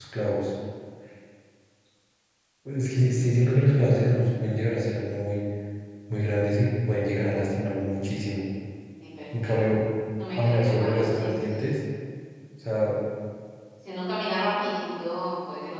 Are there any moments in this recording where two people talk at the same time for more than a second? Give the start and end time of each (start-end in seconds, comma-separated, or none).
10.4-11.7